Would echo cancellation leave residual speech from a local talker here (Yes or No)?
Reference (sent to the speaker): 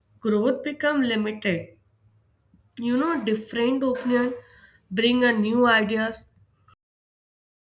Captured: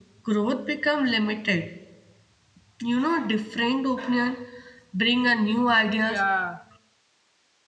Yes